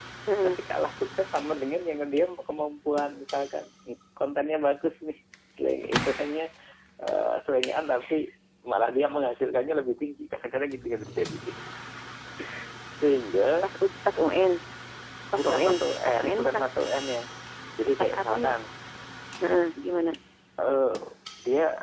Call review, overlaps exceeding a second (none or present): present